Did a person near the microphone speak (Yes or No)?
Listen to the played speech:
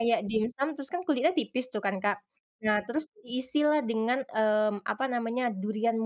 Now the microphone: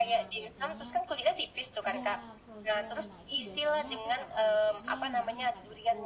Yes